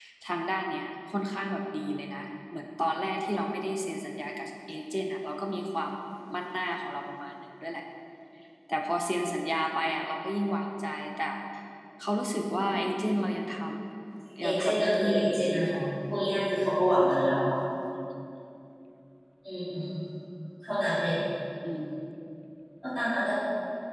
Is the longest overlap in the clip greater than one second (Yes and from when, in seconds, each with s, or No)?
Yes, from 14.4 s